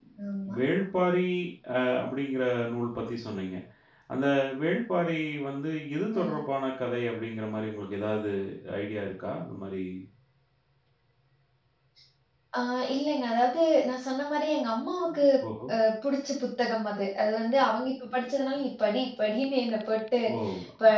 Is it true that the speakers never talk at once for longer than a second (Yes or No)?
Yes